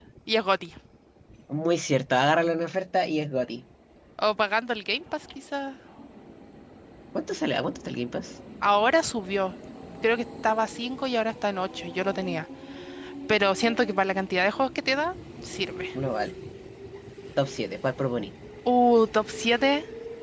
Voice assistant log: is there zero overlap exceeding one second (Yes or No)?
Yes